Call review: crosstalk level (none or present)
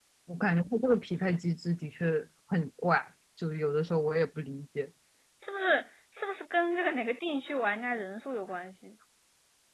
none